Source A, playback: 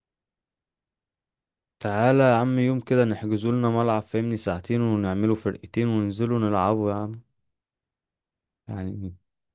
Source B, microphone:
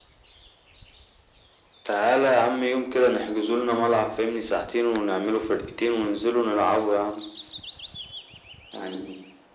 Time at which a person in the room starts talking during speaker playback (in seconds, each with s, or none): none